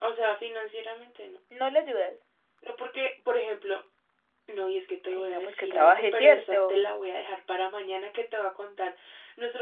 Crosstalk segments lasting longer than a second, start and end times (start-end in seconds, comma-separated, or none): 5.1-6.7